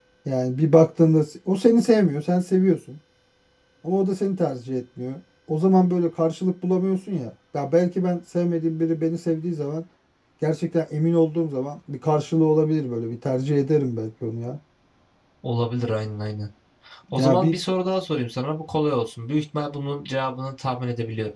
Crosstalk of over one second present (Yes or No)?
No